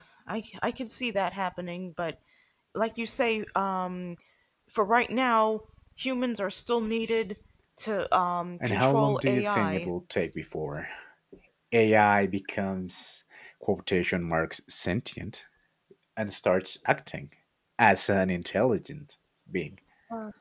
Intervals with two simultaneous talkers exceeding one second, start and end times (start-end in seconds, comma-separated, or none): 8.6-9.9